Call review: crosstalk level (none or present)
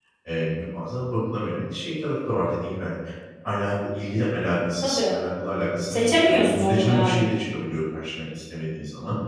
present